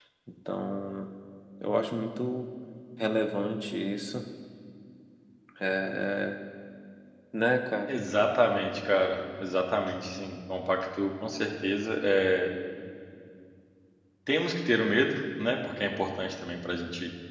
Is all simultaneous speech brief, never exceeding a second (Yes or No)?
Yes